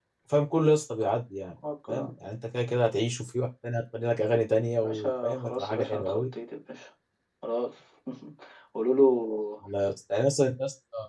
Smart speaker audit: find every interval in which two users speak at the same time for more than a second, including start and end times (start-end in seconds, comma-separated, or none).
4.8-6.2